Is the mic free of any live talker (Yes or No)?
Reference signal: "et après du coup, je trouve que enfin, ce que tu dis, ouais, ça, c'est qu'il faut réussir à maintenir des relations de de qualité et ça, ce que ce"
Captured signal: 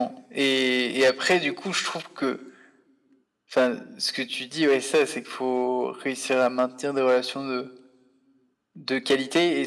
Yes